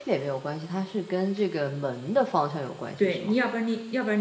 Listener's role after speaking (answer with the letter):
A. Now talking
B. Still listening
A